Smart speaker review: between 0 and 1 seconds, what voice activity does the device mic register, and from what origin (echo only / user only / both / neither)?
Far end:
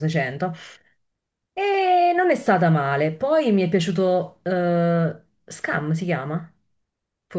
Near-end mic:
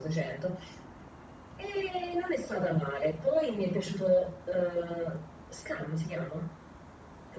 echo only